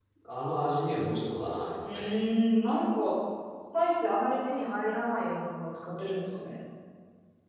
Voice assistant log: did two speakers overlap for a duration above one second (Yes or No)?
No